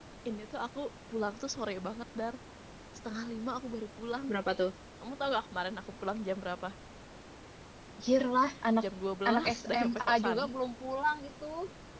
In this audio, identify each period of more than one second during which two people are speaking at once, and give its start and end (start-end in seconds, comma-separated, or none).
9.3-10.5